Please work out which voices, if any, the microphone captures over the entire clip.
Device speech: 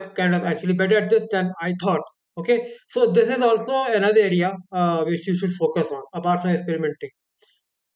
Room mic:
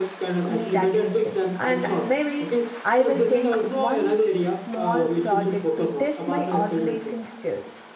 both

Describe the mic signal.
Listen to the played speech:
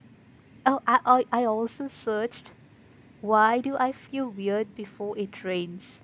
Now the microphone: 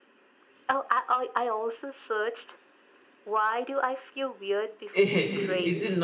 both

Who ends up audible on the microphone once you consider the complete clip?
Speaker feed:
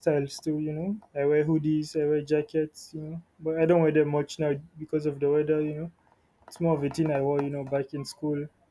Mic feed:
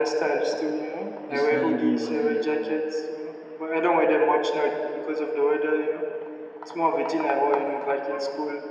both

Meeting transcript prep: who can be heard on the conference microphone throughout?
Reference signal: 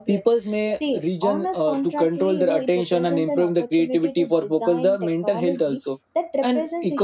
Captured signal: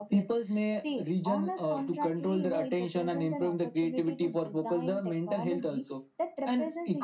echo only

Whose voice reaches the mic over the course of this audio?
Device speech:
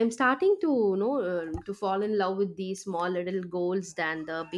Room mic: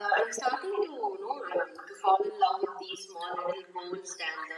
echo only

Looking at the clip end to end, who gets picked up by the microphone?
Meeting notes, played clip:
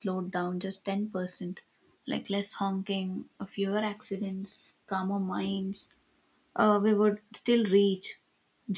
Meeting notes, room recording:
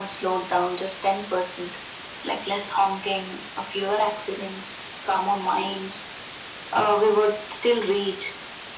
echo only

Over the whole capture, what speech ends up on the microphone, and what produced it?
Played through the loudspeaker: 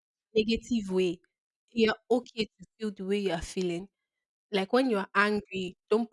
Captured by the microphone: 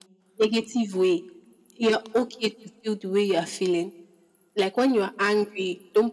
echo only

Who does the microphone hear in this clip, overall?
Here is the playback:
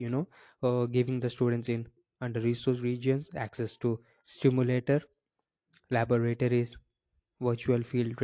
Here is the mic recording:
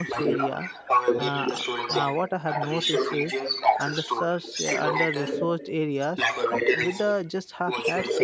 both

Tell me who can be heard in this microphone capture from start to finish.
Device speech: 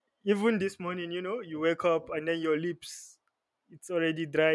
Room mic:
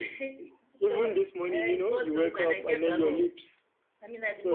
both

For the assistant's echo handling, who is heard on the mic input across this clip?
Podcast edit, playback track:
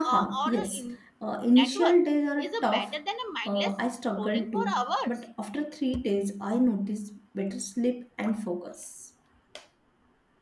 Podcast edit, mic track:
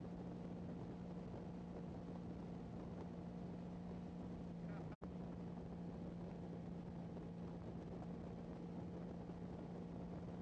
neither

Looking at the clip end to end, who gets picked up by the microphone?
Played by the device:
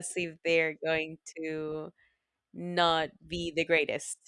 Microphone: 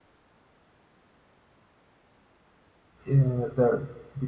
user only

